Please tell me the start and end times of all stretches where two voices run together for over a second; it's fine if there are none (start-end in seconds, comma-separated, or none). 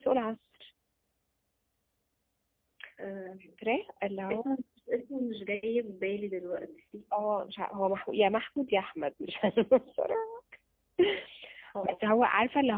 none